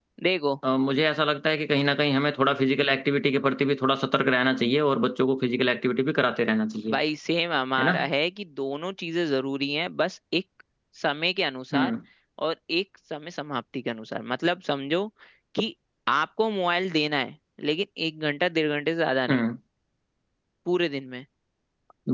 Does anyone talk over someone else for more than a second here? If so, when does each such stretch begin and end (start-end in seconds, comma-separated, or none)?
none